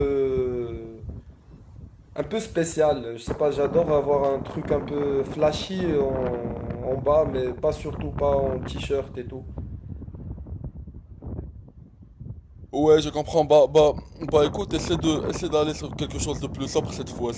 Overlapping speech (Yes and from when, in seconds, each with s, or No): No